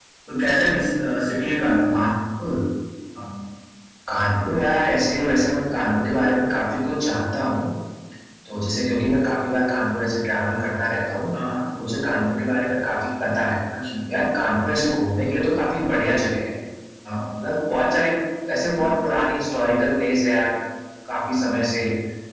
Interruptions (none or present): none